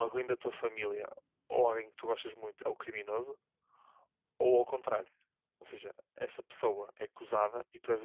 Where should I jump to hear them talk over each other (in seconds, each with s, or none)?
none